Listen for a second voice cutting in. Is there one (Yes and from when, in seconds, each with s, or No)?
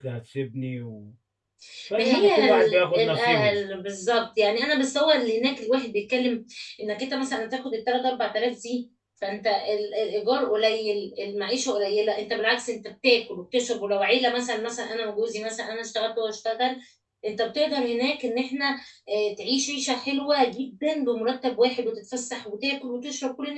Yes, from 1.9 s